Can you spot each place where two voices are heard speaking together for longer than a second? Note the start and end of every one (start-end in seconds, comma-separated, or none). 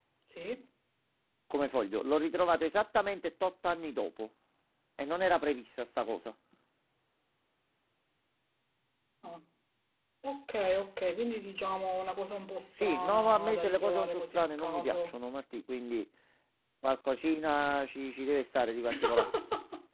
12.8-15.2